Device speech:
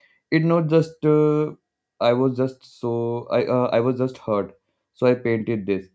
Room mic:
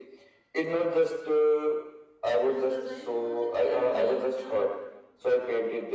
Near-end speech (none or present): present